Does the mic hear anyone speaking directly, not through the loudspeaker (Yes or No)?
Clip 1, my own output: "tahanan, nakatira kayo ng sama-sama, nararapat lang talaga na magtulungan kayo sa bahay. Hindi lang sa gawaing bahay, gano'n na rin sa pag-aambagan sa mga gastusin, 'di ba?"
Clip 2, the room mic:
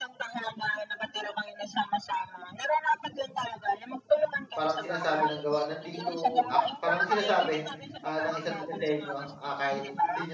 Yes